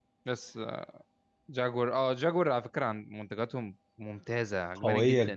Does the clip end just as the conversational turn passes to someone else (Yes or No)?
Yes